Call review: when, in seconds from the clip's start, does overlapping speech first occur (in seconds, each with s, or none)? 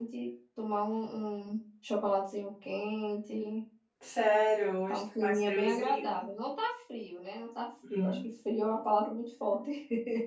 4.9 s